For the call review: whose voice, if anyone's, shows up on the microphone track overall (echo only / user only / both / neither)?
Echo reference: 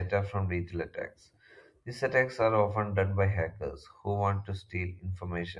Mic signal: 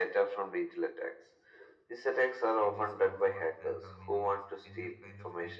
both